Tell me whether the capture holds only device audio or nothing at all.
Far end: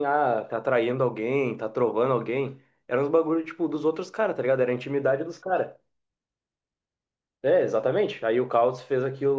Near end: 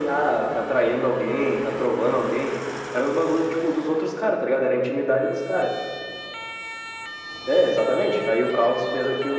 Yes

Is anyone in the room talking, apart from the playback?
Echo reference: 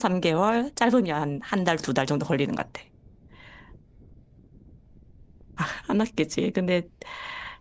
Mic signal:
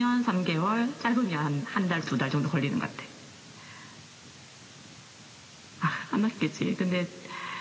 No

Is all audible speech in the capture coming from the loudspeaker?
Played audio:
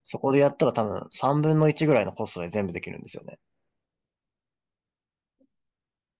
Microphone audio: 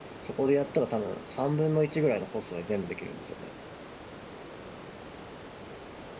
Yes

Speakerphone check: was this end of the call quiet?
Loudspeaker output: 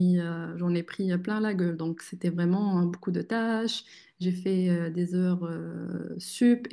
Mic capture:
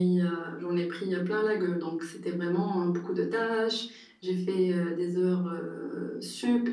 Yes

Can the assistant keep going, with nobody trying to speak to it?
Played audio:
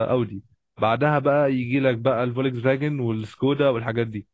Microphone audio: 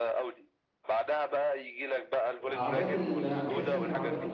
No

